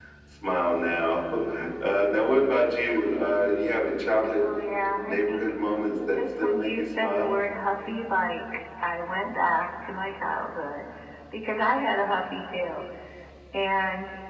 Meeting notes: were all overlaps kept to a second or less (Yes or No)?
No